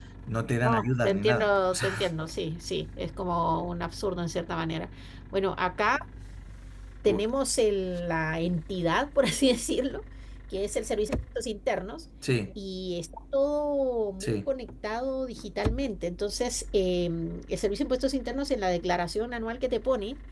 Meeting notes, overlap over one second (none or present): present